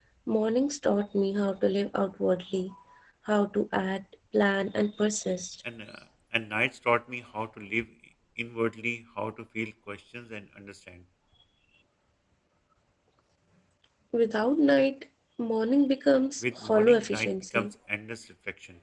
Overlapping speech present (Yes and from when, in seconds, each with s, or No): Yes, from 16.4 s